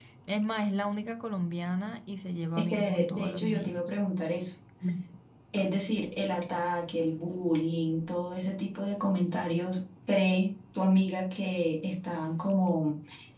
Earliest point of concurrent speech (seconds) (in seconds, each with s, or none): 2.6 s